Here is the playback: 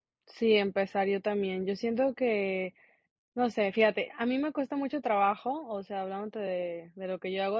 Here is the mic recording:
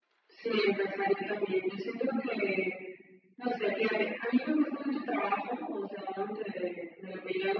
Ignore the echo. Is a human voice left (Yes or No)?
No